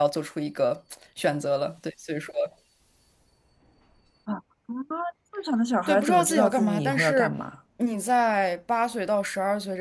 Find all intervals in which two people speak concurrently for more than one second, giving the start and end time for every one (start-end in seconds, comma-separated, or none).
5.9-7.3